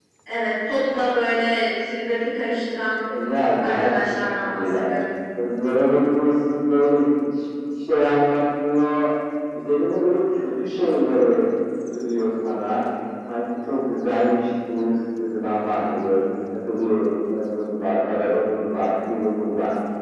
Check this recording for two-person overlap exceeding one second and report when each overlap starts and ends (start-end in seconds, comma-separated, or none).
3.6-4.9